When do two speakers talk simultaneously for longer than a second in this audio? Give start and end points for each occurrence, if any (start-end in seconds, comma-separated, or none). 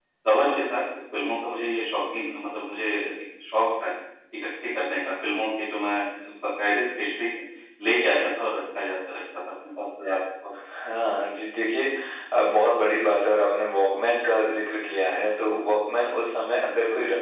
none